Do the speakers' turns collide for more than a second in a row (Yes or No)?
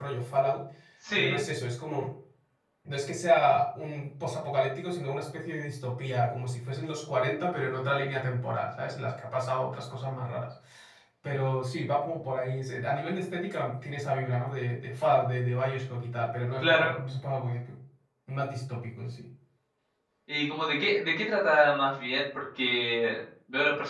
No